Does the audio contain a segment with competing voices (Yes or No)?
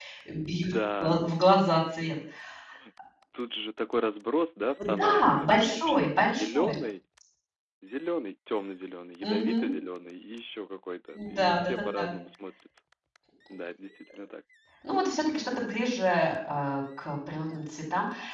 Yes